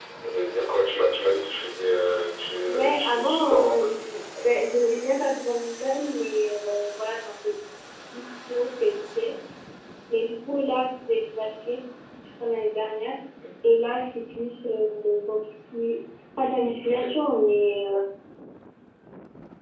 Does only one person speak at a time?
No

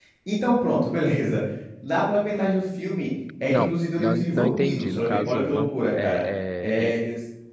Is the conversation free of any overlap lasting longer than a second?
No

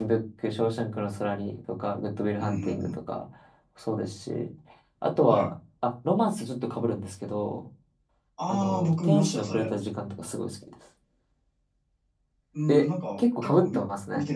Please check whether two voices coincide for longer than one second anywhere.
Yes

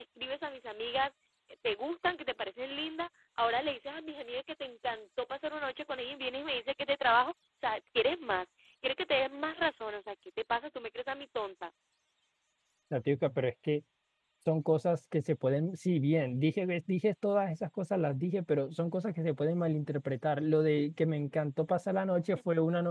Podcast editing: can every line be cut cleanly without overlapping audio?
Yes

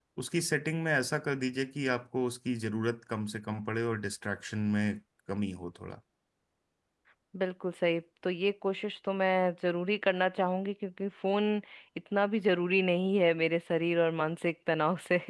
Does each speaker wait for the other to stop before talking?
Yes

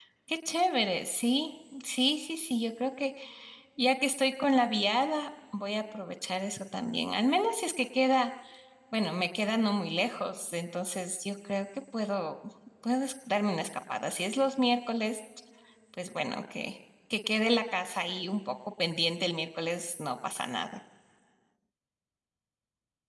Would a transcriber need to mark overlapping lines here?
No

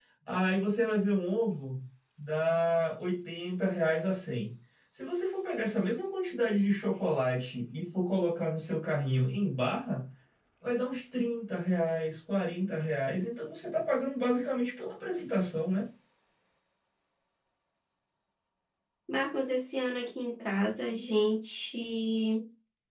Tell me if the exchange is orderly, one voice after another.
Yes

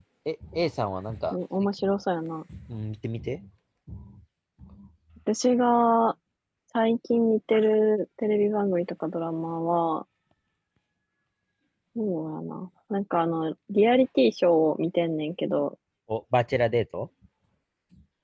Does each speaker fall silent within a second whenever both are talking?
Yes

